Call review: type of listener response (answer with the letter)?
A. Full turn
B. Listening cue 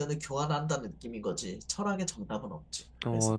A